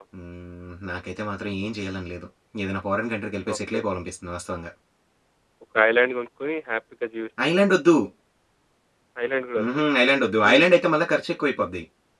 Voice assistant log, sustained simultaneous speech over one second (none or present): none